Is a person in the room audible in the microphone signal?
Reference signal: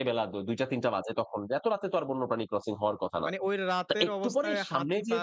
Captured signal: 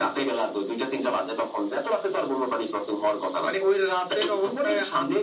No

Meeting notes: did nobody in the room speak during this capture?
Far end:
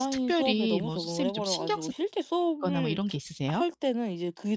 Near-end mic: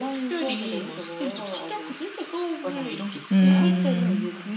No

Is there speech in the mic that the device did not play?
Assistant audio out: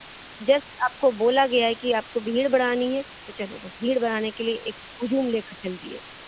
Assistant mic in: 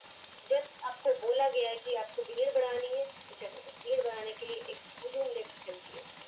No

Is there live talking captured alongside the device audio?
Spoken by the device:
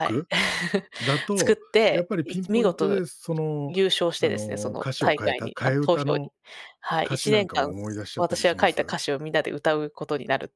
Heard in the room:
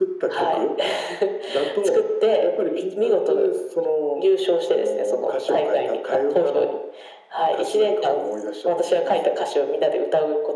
No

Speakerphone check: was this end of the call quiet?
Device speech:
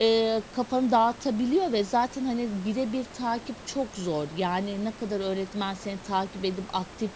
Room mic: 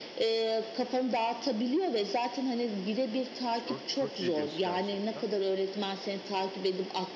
No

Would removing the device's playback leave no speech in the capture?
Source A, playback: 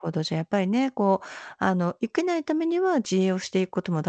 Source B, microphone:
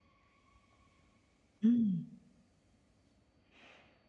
No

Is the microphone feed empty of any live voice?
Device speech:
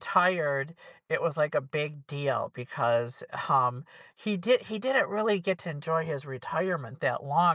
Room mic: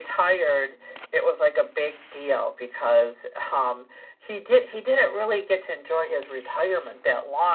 Yes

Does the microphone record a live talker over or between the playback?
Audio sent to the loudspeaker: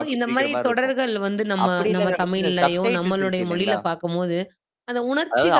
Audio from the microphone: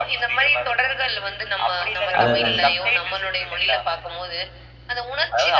Yes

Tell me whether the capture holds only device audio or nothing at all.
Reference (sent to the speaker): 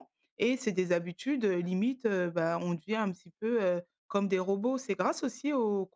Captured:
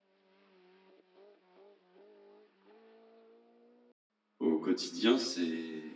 No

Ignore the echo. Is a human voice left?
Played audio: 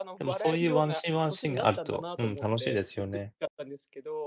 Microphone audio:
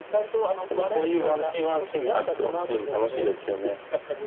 No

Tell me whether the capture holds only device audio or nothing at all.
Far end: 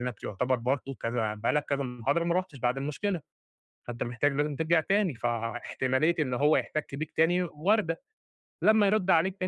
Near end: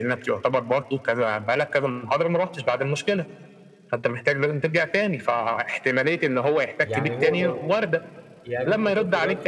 No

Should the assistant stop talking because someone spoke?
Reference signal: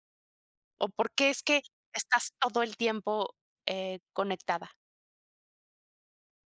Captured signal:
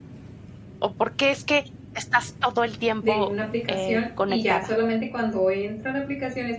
Yes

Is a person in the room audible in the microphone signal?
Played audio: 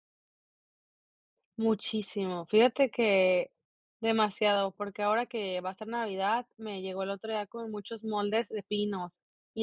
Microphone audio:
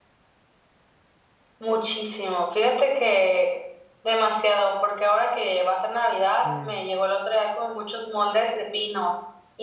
Yes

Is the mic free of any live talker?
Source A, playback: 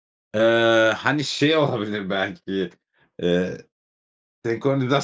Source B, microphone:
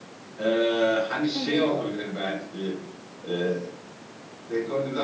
No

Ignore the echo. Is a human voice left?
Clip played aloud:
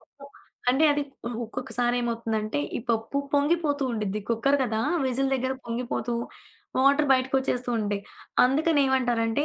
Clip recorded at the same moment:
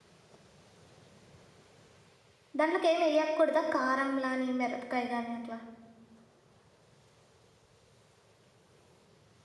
Yes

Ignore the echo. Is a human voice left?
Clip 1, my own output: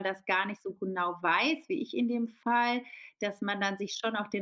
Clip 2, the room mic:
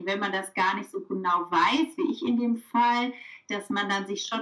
No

